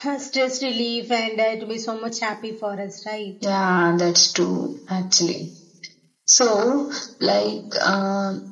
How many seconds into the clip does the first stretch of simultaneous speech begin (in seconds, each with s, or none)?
none